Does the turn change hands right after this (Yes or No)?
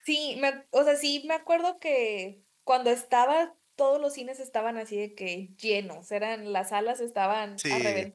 No